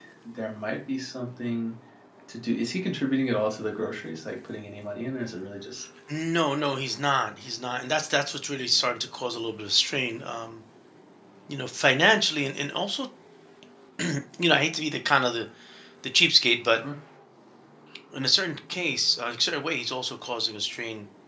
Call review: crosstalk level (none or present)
none